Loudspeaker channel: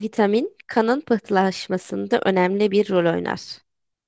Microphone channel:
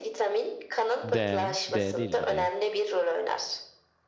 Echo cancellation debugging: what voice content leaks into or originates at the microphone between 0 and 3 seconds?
both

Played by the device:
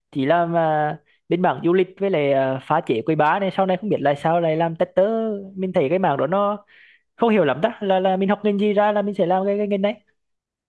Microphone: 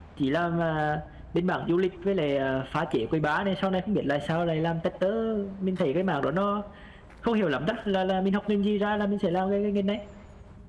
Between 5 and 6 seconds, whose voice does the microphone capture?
echo only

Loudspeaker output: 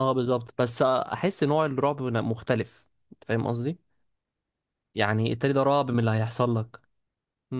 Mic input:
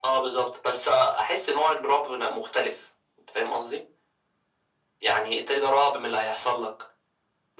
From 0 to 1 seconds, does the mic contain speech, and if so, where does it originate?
echo only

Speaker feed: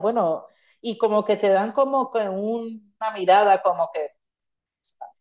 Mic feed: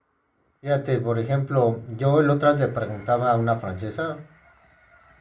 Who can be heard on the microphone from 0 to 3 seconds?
user only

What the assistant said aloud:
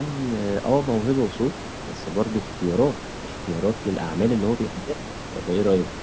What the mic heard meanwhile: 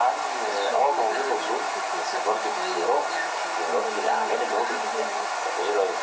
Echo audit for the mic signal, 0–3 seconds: both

